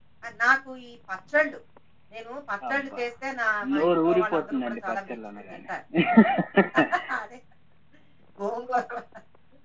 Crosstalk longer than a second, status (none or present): present